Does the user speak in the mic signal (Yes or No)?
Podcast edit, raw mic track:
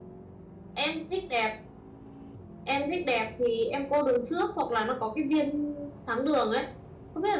No